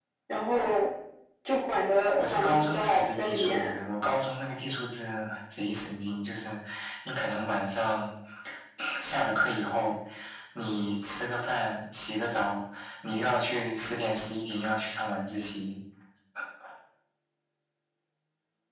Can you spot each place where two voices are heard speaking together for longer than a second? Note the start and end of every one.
2.2-3.8

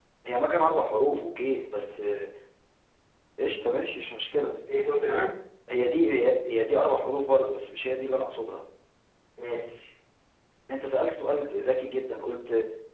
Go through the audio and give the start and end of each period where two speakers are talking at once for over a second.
none

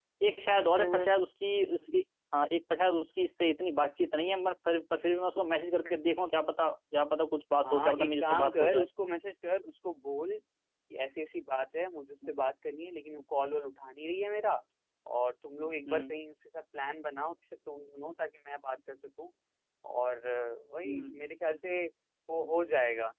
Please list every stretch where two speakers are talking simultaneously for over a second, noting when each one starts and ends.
7.6-8.9

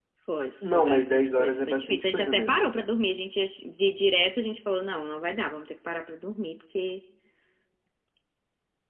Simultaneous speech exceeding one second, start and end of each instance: 0.6-2.6

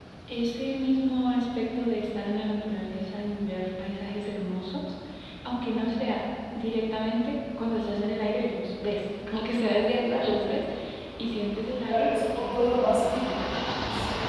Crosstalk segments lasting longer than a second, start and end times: 11.9-13.4

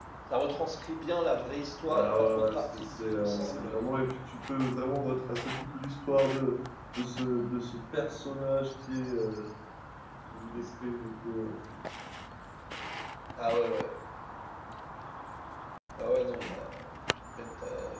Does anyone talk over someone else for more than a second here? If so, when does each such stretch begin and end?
1.9-4.1

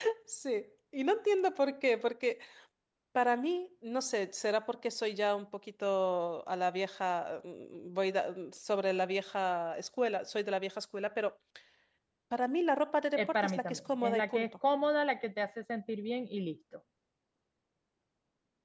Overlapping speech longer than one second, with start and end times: 13.2-14.4

